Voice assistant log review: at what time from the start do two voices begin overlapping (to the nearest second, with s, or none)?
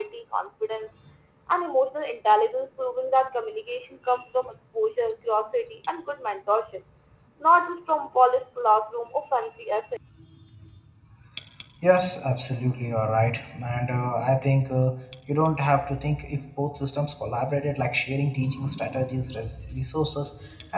none